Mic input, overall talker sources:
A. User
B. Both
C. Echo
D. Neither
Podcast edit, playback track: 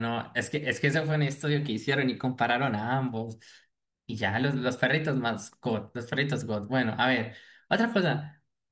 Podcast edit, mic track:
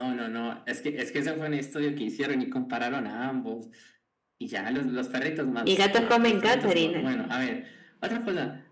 B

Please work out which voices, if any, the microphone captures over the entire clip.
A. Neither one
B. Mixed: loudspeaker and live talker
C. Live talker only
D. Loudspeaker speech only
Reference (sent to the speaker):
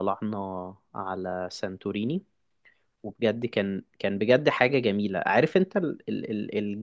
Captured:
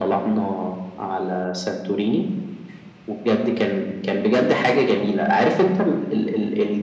D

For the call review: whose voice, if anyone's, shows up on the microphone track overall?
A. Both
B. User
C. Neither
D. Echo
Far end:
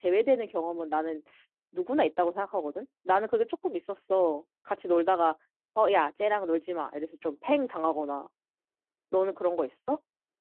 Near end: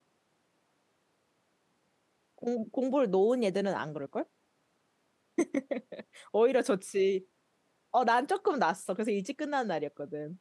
B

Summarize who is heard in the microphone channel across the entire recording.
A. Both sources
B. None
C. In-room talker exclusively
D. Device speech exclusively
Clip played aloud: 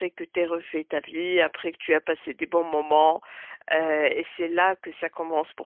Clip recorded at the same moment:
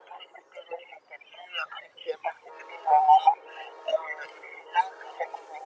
D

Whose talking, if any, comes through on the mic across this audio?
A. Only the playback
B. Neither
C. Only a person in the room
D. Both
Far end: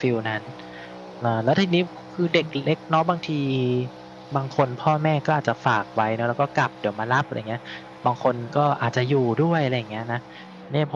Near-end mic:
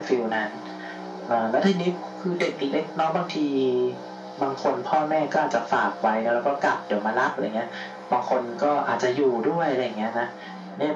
A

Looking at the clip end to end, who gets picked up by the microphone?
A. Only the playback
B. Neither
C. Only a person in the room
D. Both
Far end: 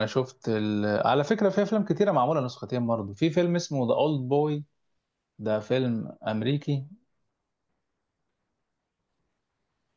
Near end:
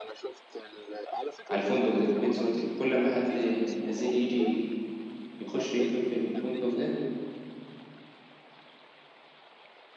D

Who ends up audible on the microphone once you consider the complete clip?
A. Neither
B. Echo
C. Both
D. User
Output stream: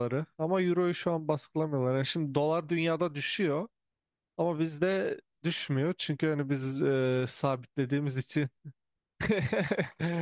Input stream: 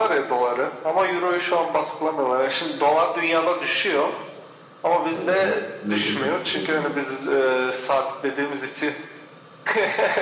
C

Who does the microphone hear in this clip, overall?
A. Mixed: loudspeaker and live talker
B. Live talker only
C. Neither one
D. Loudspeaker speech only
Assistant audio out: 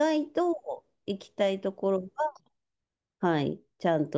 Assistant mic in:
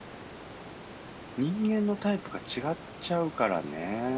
B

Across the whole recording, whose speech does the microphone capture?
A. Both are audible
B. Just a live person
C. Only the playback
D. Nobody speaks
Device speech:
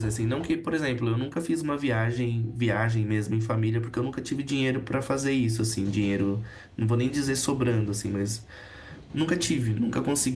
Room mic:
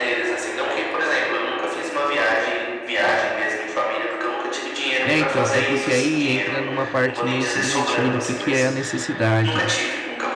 A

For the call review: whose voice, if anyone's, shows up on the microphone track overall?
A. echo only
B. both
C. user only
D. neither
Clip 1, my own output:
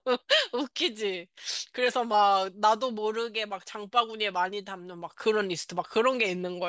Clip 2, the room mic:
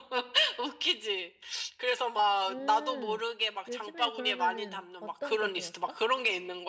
B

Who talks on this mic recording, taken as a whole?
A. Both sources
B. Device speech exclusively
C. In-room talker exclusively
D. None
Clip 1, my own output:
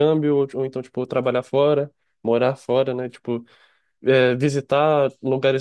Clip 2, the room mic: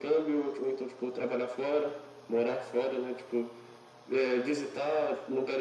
B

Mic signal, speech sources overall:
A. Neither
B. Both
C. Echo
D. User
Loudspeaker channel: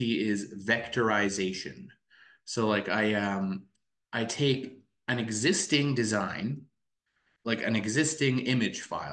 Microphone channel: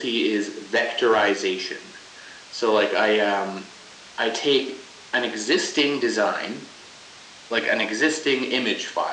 C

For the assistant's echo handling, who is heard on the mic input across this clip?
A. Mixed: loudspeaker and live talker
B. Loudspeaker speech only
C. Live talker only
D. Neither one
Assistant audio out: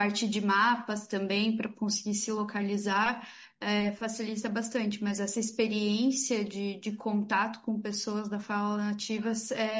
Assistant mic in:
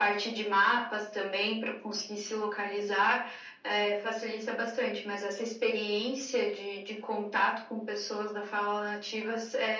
B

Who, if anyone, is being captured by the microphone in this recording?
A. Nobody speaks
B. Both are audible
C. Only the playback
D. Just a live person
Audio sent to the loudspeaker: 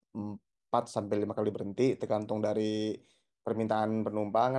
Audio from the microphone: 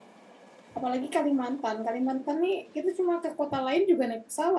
D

